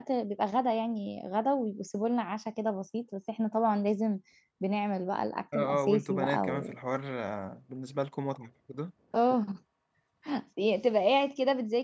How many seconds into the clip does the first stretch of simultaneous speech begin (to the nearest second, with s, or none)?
6 s